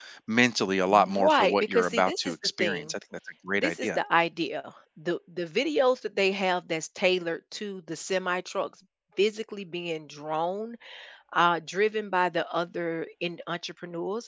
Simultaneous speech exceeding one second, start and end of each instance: 0.9-2.9

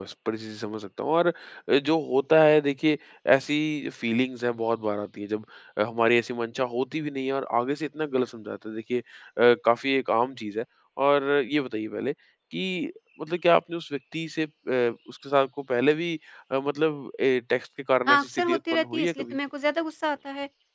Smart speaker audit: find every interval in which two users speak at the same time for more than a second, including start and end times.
18.1-19.4

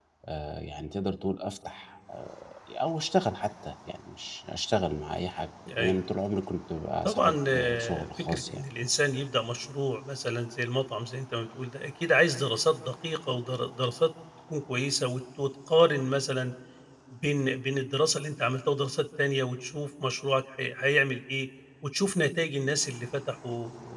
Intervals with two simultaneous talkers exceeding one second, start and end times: 7.0-8.6

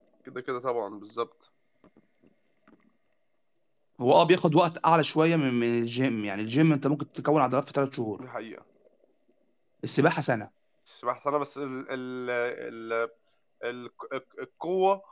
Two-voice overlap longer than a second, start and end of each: none

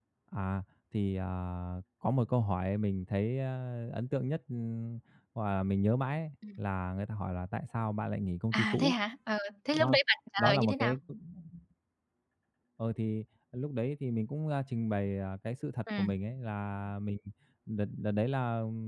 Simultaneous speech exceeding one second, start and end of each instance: none

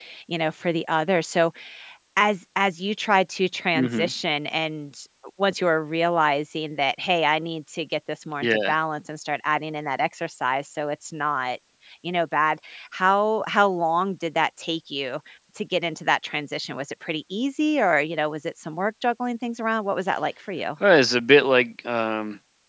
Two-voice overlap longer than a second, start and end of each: none

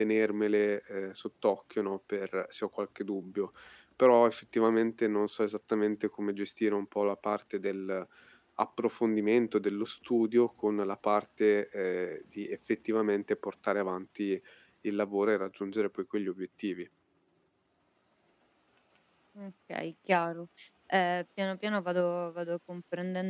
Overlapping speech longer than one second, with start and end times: none

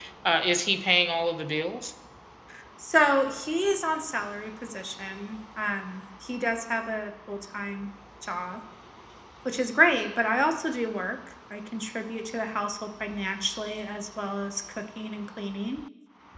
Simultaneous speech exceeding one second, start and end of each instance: none

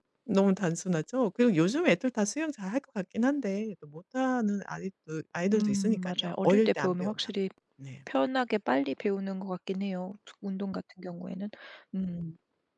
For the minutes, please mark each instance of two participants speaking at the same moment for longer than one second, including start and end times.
5.5-7.1

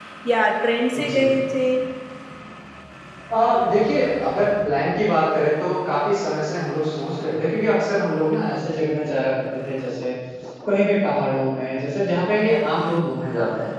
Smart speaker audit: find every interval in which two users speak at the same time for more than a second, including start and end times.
none

